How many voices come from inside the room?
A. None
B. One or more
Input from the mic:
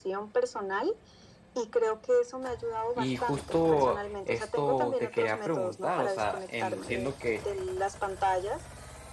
B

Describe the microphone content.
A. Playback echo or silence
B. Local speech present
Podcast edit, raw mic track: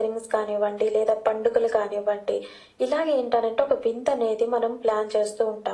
A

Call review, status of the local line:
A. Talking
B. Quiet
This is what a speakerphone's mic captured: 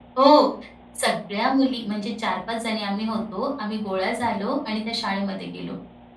B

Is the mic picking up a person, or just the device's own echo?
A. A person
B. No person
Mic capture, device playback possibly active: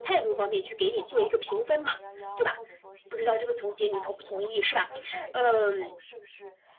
A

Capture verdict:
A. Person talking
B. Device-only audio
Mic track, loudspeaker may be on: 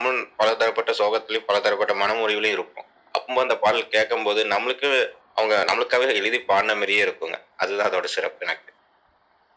B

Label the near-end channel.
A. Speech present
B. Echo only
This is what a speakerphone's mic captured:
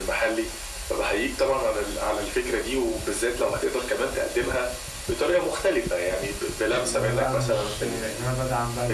A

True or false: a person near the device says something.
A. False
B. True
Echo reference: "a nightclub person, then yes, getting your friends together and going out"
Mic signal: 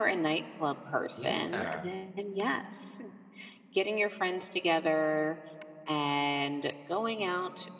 B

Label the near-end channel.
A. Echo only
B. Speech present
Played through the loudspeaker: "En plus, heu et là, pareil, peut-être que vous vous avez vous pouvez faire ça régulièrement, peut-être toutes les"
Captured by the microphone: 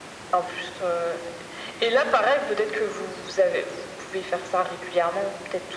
A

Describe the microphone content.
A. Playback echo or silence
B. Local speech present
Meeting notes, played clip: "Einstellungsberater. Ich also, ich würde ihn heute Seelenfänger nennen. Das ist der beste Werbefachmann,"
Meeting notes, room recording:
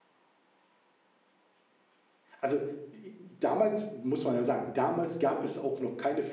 B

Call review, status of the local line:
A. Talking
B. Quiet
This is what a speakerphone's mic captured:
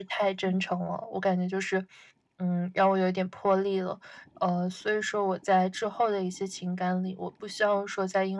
A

